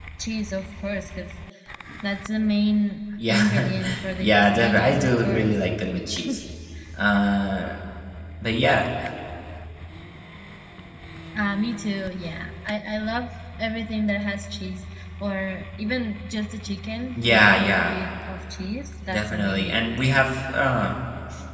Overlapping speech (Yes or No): Yes